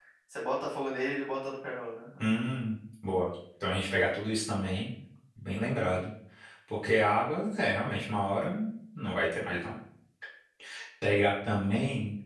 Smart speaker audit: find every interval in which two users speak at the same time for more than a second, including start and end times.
none

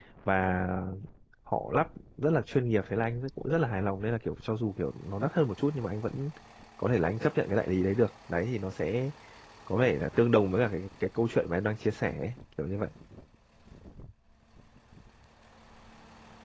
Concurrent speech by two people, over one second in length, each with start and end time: none

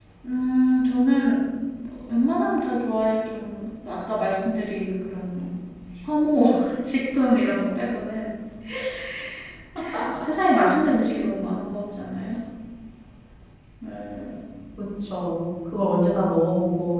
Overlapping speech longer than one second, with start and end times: none

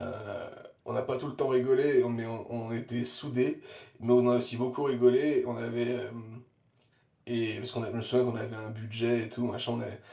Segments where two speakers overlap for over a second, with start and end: none

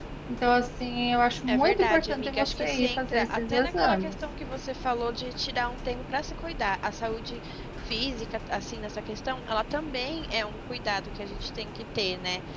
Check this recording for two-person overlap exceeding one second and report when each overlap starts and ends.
1.5-4.1

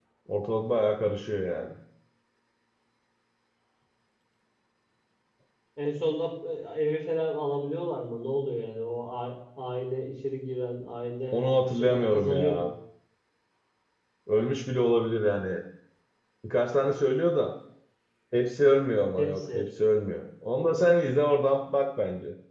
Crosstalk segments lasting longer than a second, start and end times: 11.3-12.7

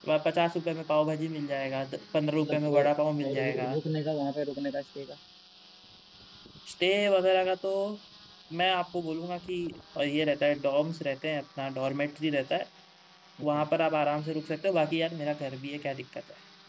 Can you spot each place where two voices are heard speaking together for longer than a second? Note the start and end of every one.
2.4-3.7

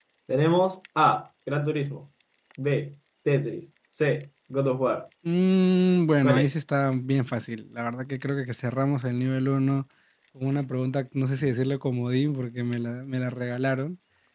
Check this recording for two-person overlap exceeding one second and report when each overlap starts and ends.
none

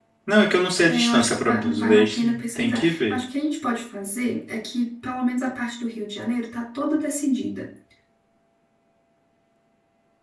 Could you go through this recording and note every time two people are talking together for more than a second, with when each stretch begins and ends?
0.8-3.2

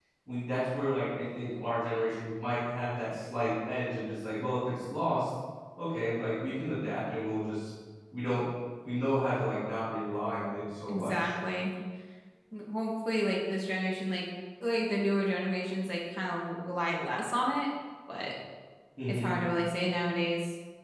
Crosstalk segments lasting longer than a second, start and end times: none

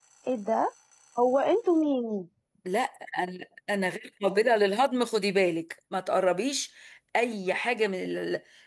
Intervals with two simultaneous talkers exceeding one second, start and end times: none

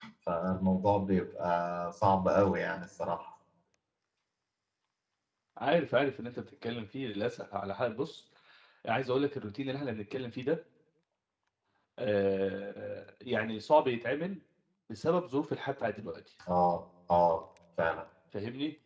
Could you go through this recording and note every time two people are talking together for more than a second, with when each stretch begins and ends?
none

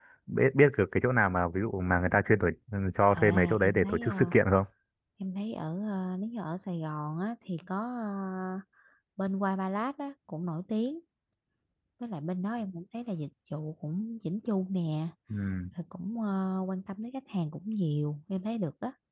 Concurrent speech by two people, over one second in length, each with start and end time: 3.1-4.3

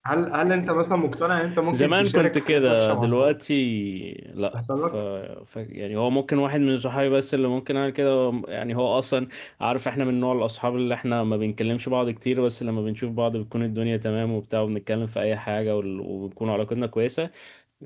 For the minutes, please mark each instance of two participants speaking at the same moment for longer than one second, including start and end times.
1.7-3.4

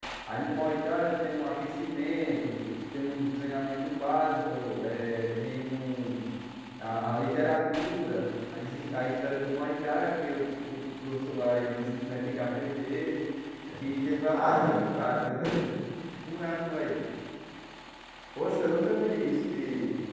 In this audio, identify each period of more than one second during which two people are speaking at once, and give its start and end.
none

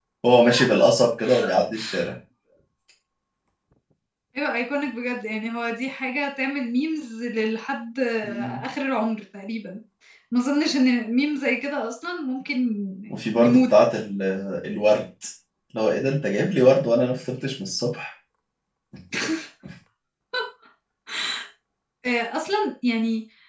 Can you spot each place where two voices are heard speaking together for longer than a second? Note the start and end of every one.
none

